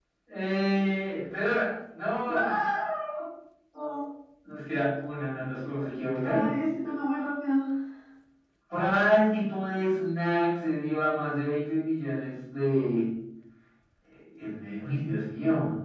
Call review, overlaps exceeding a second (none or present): none